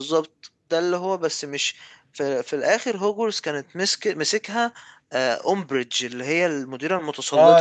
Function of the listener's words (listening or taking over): taking over